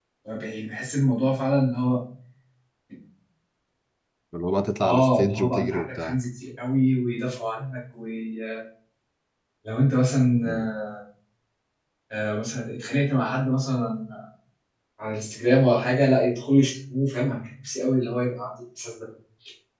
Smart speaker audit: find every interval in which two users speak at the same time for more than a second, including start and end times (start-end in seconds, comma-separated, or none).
4.8-6.2